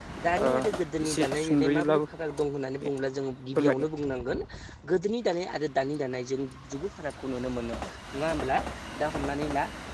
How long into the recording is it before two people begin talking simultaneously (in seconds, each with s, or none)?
0.5 s